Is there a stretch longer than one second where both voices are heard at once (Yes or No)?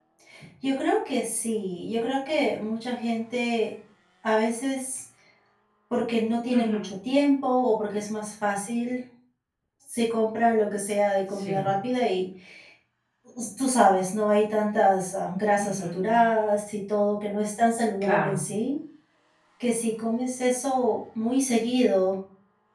No